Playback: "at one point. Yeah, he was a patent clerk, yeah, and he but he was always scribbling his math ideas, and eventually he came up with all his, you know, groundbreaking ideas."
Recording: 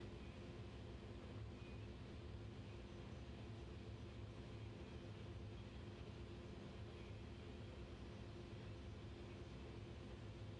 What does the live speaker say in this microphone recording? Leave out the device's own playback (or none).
none